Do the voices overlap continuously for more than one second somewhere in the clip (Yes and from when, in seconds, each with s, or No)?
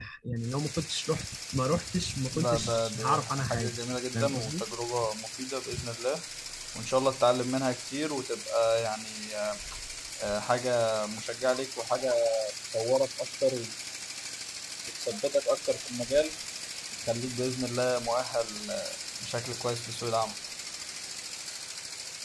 Yes, from 2.3 s